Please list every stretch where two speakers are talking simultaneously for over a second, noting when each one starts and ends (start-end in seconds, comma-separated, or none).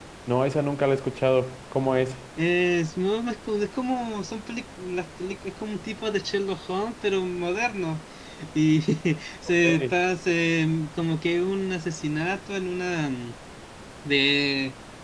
none